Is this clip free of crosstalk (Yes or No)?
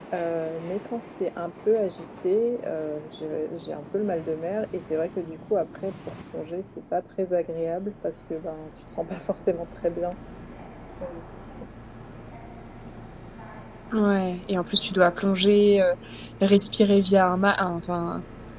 Yes